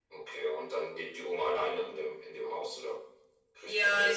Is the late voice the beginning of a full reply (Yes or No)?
Yes